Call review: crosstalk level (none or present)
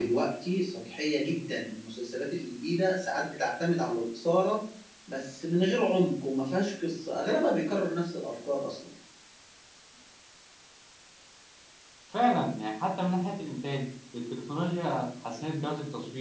none